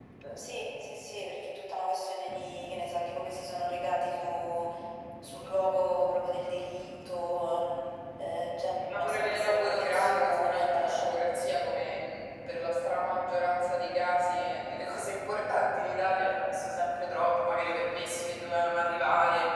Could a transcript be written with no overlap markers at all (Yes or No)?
No